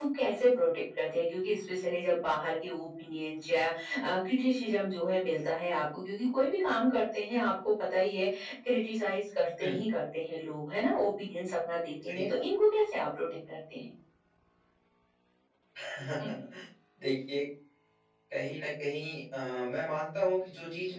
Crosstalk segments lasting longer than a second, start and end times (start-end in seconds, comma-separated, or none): none